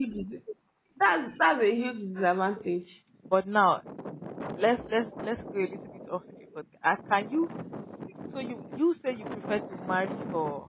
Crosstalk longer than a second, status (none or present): none